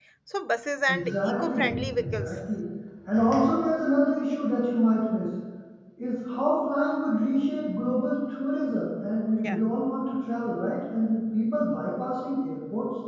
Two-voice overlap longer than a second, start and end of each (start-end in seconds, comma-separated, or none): 0.9-2.3